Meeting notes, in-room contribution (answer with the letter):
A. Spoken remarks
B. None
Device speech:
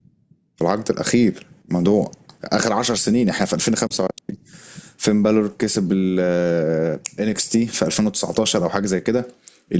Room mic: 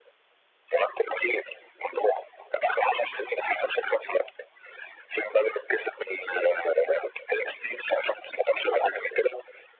B